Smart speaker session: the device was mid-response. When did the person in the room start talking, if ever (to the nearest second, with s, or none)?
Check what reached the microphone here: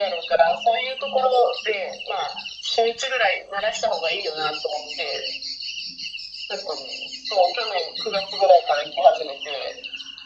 none